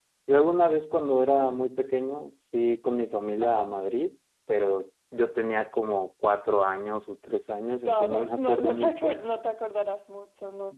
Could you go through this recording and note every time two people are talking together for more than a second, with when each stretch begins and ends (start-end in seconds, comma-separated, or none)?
7.8-9.2